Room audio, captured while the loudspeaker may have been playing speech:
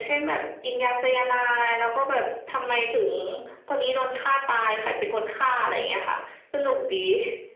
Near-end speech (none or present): none